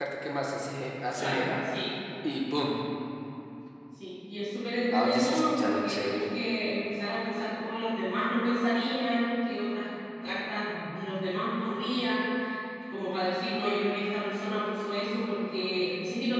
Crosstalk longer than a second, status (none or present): present